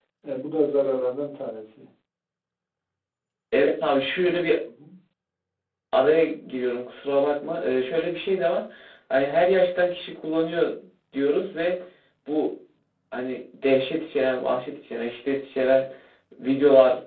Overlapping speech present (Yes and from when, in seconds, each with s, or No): No